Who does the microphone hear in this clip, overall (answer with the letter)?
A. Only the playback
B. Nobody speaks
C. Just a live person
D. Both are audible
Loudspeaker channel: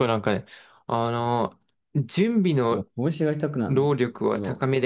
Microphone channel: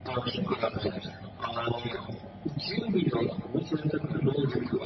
A